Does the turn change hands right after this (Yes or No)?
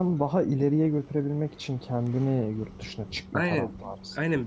Yes